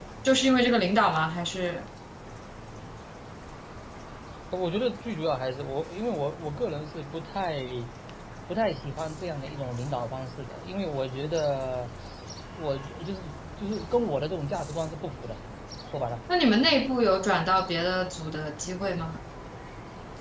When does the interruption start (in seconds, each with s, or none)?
none